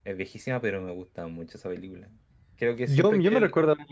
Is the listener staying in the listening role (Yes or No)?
No